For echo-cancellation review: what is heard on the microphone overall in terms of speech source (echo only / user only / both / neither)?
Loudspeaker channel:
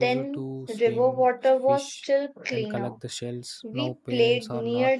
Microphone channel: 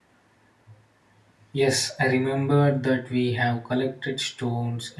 user only